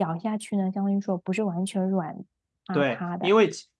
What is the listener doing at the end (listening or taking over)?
taking over